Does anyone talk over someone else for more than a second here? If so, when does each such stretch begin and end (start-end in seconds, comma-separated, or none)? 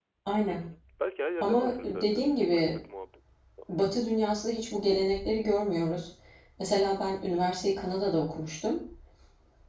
1.4-2.8